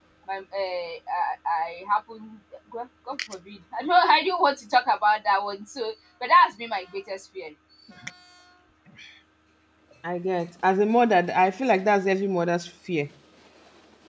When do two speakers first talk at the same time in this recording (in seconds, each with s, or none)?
none